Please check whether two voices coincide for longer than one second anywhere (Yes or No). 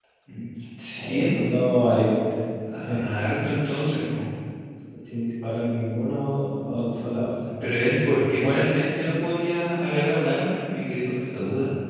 No